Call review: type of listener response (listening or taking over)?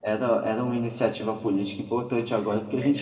taking over